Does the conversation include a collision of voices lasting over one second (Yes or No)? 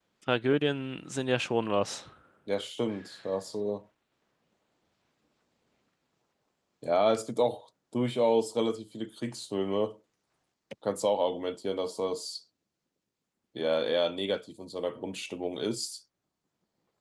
No